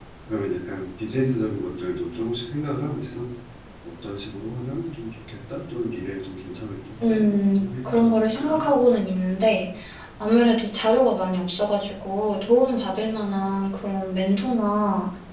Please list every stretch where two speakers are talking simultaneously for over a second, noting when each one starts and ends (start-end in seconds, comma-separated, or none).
7.1-8.7